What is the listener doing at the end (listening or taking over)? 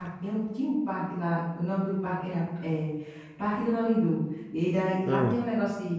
listening